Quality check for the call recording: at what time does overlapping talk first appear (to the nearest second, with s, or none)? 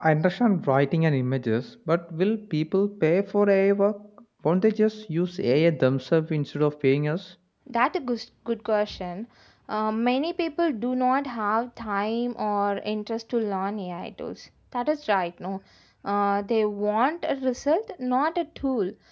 none